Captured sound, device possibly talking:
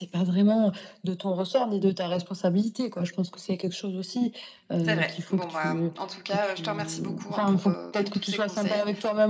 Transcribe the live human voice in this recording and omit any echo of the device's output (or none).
C'est vrai. Bon, bah, mmh, en tout cas, je te remercie beaucoup, hein, pour, heu, pour tous ces conseils,